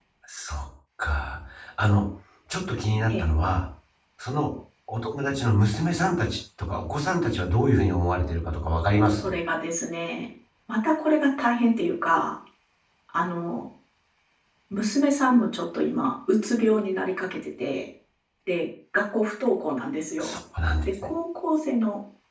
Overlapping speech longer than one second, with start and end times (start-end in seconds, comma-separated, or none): none